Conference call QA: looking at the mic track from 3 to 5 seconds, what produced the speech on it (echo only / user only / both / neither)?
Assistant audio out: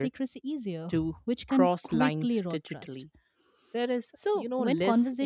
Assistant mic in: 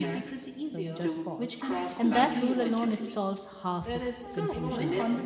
both